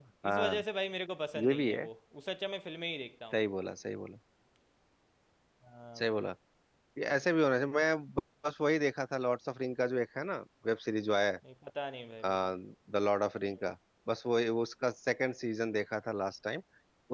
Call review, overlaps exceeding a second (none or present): none